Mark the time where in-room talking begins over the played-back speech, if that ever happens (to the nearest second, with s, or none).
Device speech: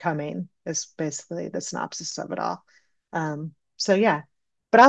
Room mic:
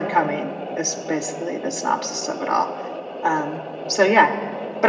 none